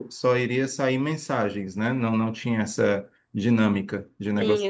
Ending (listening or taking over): taking over